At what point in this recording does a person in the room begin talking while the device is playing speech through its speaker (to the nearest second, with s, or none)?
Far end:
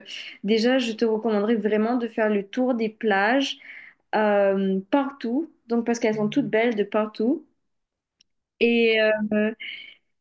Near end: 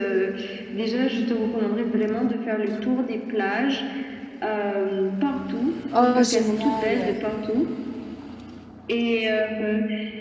6 s